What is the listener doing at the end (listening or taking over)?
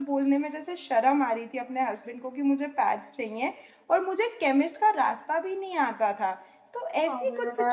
listening